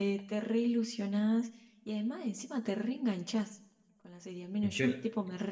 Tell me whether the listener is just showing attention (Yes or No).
Yes